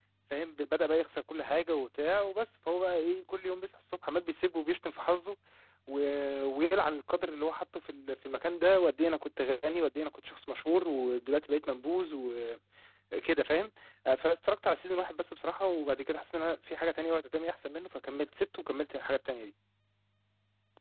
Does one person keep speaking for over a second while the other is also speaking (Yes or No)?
No